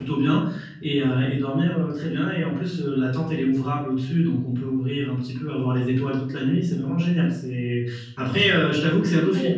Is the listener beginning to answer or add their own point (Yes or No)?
No